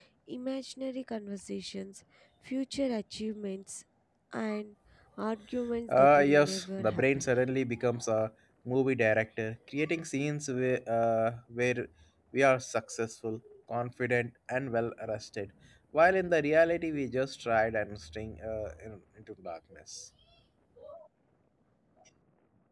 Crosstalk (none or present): present